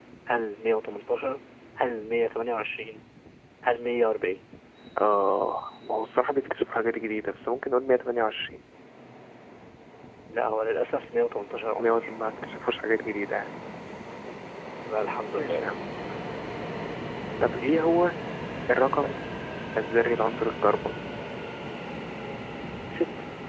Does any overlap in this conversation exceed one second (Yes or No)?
No